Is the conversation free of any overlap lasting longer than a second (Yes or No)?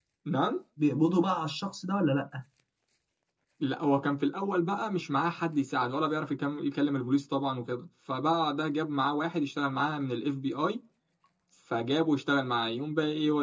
Yes